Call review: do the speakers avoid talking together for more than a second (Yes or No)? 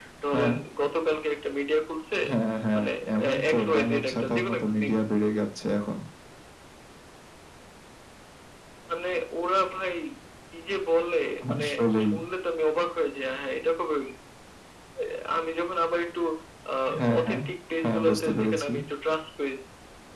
No